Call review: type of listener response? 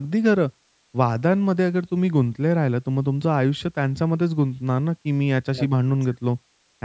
listening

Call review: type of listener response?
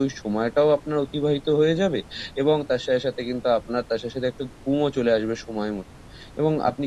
listening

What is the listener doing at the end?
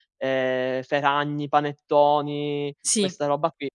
listening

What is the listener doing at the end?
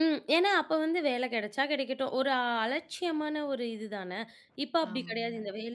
listening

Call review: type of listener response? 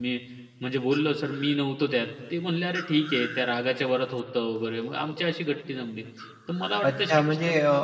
taking over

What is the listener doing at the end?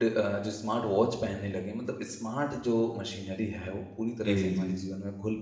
listening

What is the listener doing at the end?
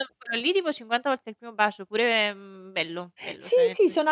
taking over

